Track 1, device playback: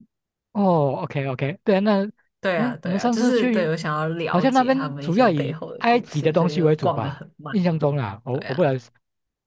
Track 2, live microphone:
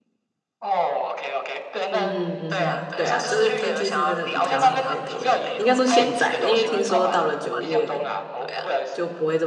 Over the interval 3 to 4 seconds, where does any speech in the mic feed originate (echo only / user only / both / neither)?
both